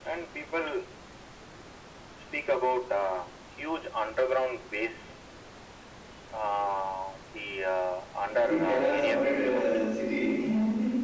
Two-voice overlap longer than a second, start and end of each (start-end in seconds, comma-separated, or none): 8.4-9.7